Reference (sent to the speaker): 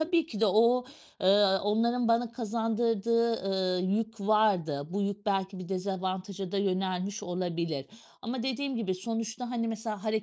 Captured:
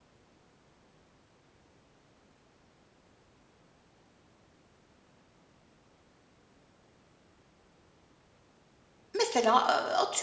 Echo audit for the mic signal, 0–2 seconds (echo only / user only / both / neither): neither